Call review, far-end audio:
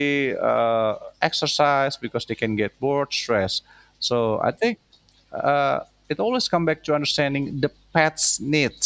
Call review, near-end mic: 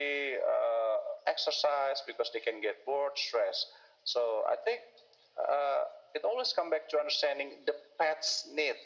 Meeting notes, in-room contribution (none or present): none